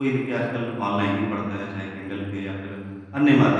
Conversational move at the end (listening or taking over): listening